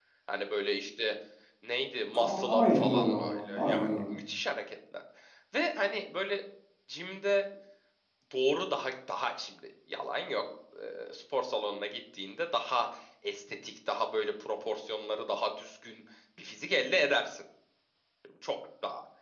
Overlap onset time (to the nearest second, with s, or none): 2 s